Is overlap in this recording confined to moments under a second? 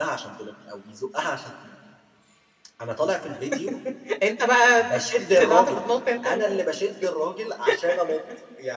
Yes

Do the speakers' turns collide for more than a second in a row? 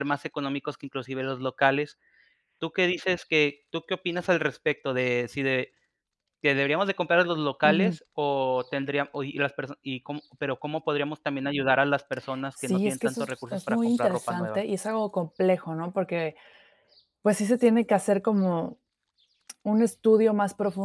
Yes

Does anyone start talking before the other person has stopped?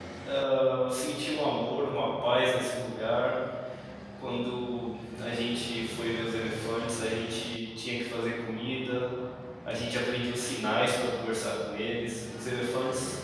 No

